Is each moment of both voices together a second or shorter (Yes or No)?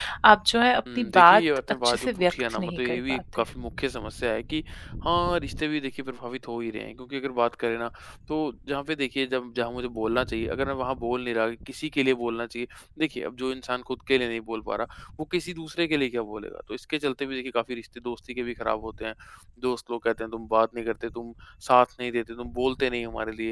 No